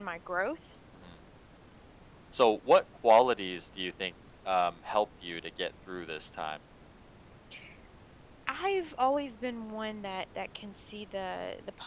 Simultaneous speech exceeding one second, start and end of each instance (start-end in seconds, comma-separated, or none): none